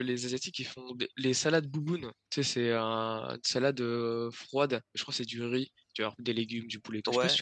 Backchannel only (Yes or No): No